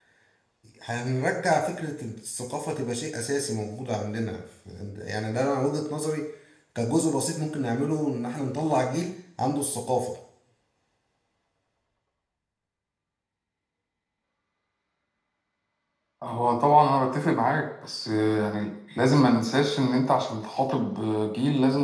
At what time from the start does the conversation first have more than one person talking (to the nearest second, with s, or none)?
none